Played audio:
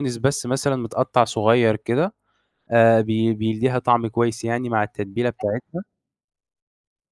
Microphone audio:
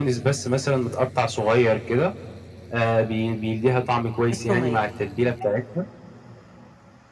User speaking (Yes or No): Yes